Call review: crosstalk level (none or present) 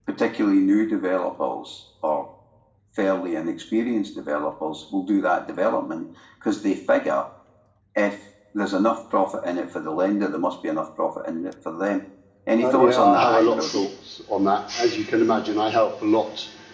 present